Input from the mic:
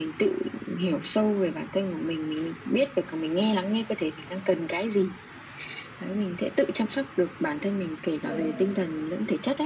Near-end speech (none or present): present